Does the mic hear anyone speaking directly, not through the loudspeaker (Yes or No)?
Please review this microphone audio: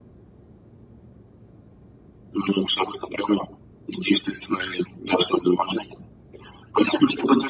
No